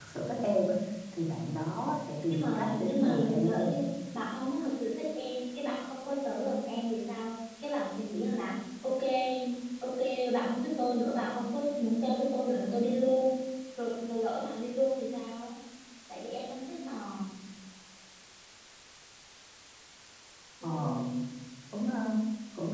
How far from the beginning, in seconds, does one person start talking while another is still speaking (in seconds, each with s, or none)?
2.3 s